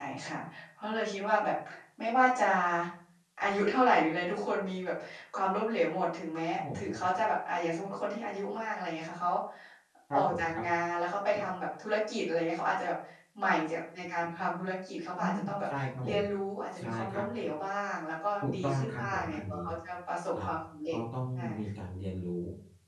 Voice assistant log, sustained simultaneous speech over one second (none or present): present